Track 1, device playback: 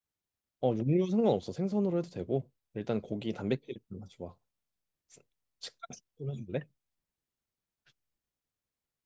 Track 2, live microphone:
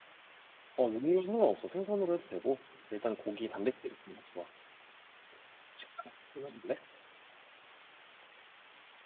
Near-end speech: none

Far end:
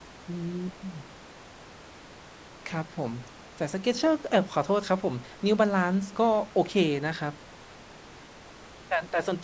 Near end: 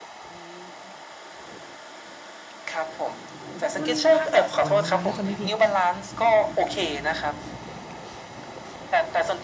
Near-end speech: present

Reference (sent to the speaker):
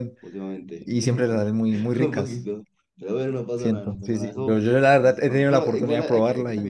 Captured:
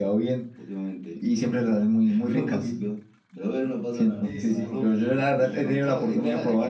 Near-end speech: present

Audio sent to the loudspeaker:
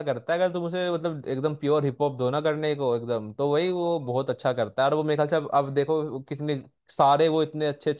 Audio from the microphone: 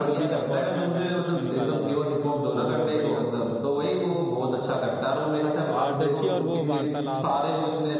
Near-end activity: present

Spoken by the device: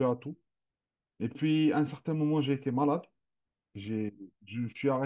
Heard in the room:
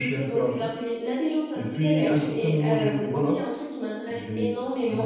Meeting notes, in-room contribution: present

